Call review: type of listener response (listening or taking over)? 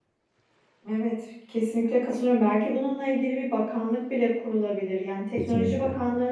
listening